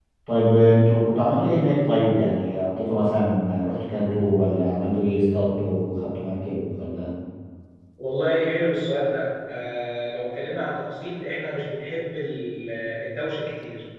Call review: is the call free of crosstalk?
Yes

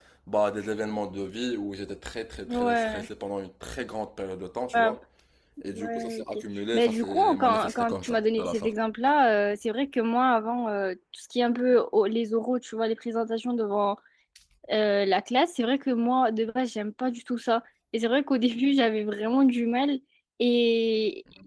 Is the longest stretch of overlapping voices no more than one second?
No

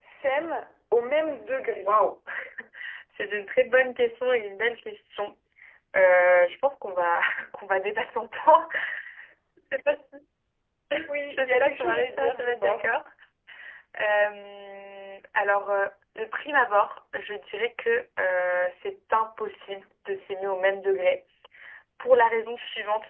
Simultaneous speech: Yes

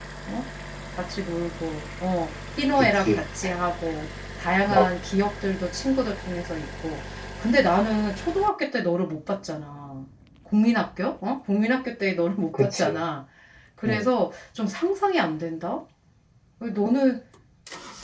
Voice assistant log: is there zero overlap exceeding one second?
Yes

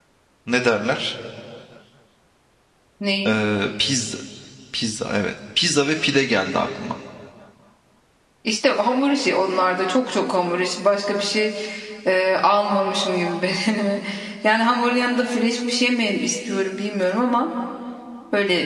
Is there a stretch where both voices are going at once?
No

